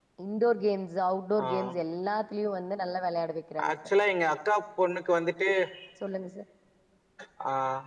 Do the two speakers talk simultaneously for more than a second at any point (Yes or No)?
No